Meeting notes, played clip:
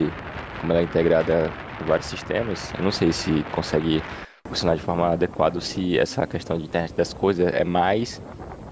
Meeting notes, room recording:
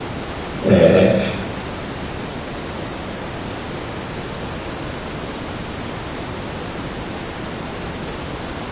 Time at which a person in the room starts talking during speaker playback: 1 s

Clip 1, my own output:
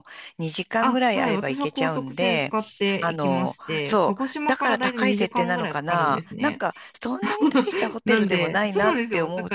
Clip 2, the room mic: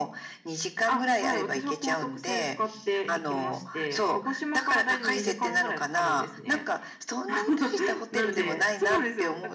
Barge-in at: none

